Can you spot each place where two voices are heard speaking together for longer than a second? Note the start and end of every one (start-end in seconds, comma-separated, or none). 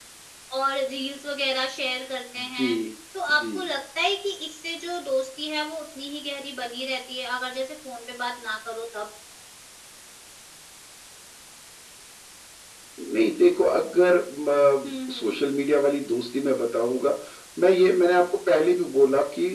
none